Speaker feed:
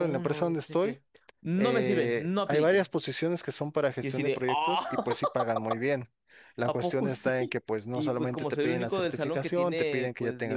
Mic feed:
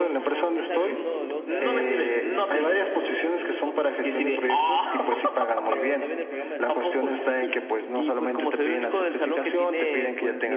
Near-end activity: present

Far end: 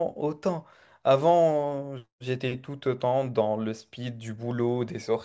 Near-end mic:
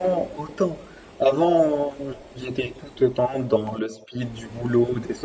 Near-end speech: none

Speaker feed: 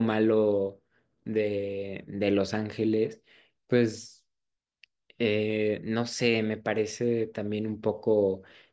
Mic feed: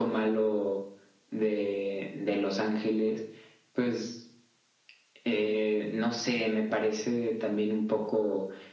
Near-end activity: none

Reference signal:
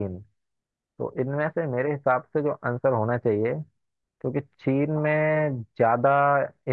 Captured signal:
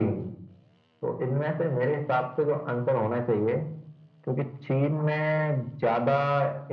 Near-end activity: none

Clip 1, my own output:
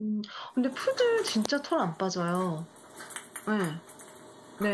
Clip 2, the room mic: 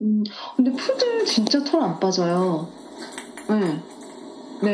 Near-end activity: none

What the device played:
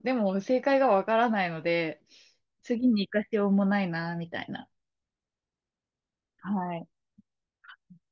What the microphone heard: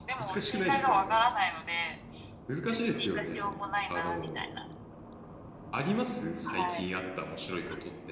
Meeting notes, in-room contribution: present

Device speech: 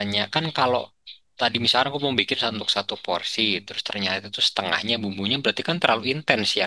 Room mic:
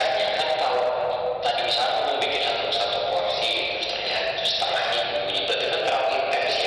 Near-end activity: none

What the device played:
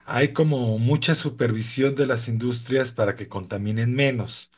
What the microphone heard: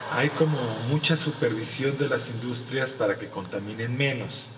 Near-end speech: none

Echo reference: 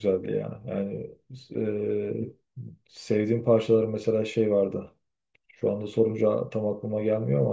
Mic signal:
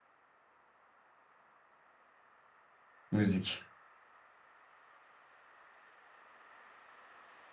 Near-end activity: present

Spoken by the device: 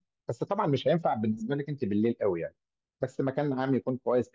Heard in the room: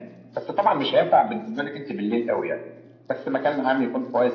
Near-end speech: none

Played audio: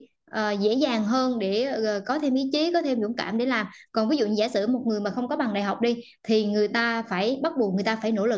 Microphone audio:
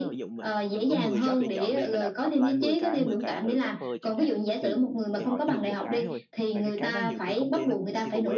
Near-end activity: present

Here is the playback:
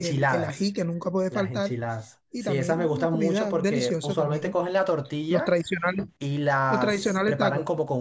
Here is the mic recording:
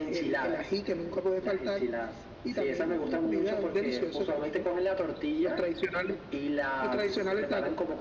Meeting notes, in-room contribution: none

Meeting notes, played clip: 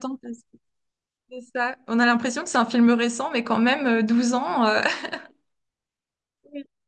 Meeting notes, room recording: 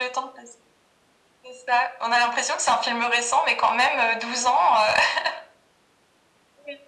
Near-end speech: none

